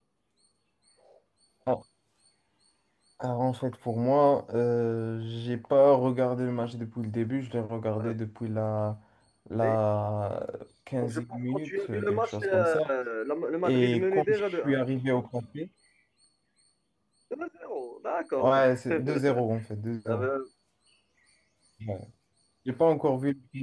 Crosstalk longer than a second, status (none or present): present